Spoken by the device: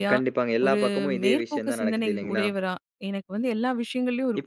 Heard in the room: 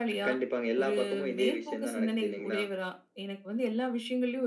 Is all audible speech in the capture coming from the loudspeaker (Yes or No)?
Yes